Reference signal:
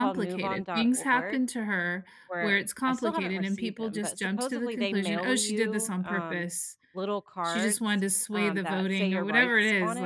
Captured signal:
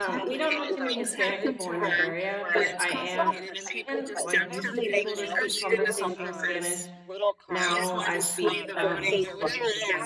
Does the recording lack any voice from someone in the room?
No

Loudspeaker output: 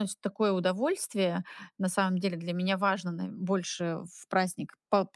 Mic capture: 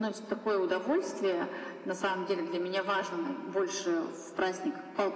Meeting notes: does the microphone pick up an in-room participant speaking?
No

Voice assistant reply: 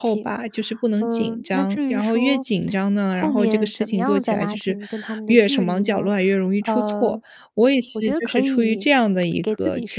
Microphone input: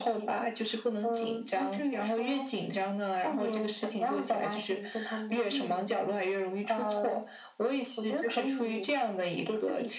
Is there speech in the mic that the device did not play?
No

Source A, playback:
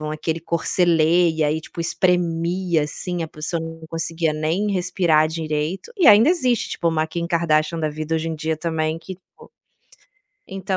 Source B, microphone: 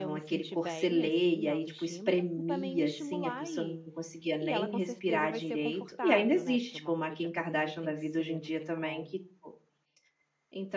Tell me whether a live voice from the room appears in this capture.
Yes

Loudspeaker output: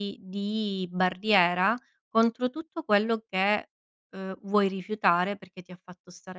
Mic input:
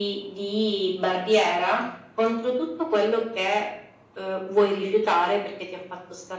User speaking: No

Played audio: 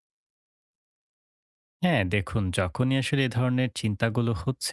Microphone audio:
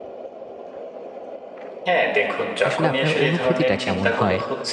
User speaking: Yes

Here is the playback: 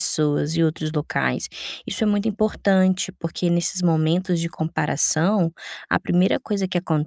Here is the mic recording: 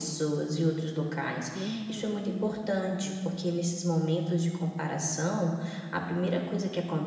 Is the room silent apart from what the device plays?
No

